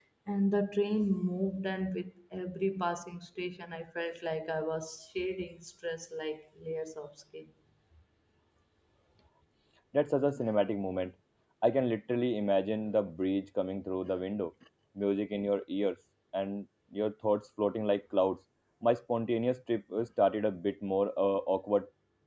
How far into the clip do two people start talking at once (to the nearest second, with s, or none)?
none